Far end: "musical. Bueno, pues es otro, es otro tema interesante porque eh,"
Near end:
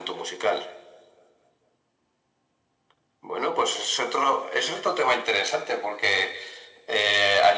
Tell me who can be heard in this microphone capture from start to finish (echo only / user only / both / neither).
echo only